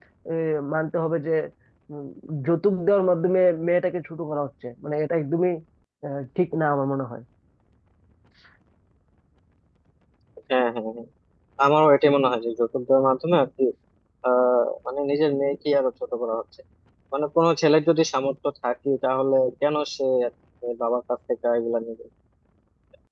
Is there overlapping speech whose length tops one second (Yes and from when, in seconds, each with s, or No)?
No